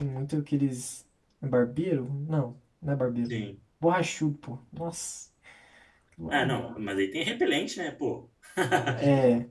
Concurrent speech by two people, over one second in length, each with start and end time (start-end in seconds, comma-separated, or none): none